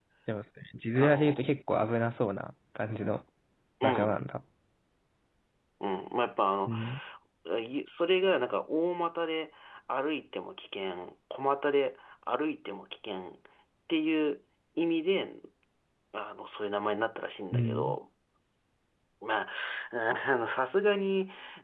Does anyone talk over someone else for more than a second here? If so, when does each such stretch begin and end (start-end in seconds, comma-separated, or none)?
none